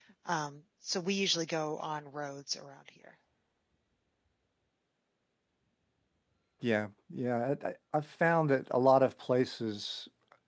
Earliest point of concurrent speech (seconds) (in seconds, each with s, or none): none